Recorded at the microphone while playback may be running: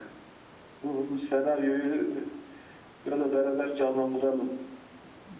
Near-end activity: none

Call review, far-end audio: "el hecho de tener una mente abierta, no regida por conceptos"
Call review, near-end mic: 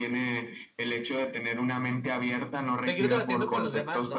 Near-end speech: present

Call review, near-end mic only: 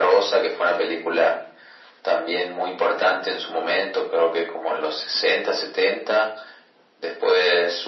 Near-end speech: none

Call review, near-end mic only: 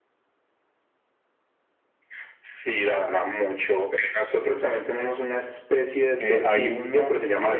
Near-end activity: present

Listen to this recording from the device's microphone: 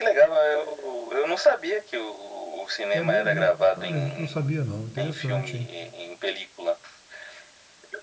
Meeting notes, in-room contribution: present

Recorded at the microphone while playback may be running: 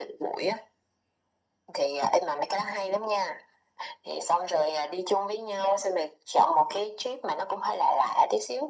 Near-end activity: none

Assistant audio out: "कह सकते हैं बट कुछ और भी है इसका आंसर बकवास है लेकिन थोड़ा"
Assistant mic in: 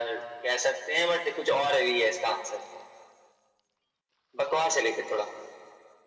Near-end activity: none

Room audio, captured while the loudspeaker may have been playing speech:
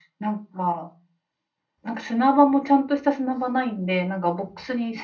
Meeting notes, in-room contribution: none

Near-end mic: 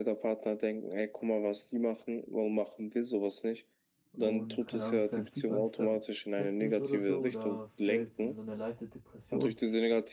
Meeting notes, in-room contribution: present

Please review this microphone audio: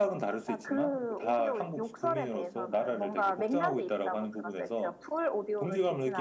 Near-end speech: none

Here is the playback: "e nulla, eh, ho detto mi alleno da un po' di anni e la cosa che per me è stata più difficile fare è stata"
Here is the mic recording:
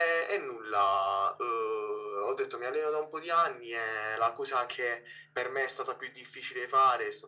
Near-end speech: none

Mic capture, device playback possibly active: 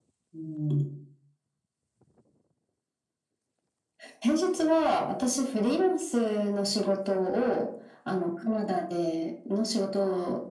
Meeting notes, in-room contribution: none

